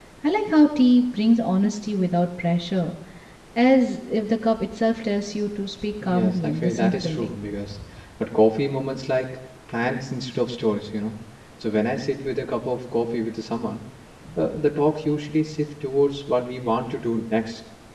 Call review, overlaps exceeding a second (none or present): present